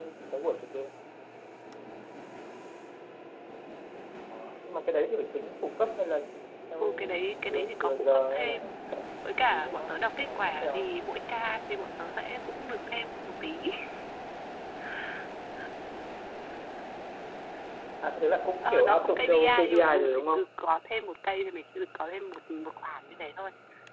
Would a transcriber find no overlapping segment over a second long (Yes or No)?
No